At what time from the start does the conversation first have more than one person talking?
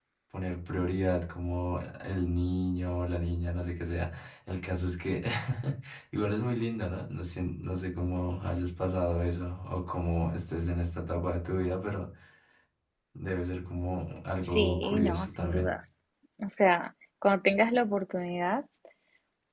14.4 s

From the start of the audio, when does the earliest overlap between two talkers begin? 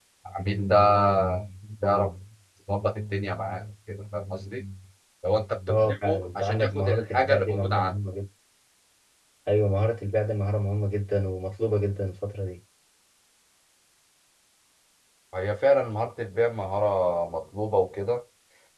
5.7 s

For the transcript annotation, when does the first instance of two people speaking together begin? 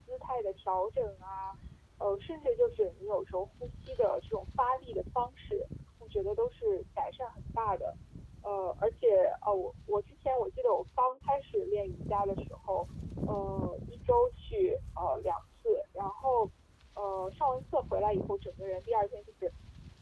none

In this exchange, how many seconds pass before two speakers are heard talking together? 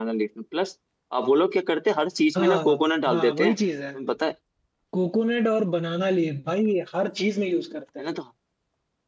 2.4 s

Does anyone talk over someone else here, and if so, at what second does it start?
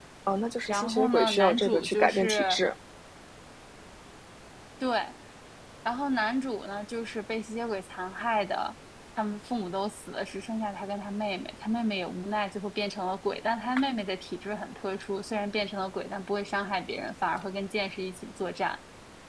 0.7 s

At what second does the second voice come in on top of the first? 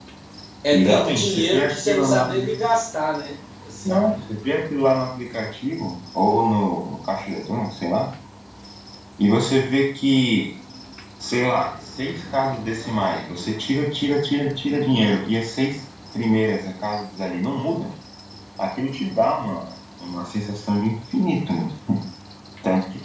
0.7 s

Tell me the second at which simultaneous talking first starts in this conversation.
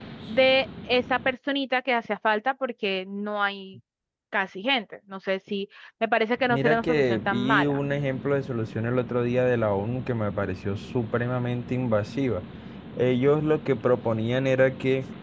6.5 s

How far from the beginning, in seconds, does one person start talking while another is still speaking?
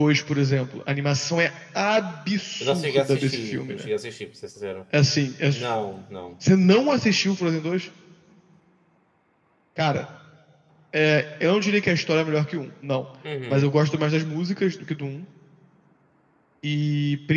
2.6 s

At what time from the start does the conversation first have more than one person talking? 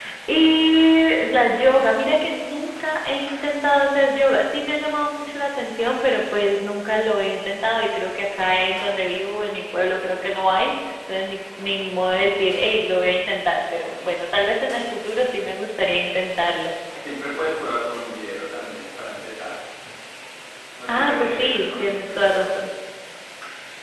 20.9 s

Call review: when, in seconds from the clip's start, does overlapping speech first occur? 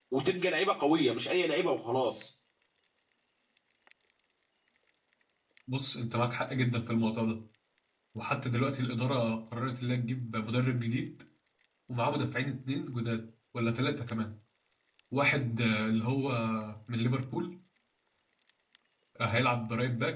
none

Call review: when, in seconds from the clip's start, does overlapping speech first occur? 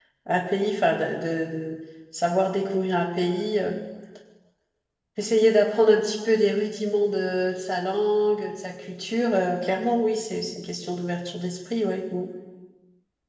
none

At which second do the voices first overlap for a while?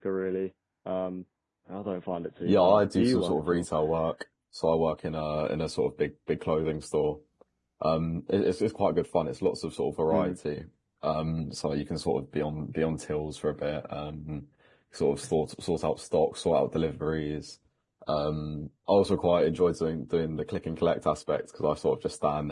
2.5 s

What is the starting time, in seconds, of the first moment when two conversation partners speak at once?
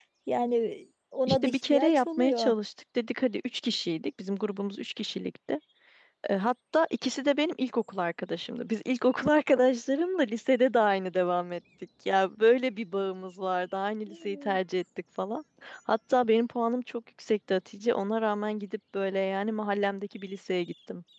1.3 s

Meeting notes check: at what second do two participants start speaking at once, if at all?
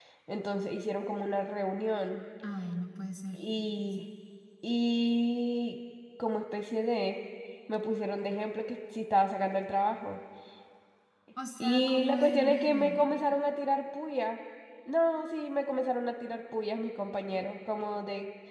11.6 s

